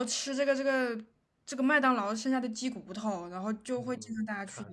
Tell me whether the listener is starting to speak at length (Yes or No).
Yes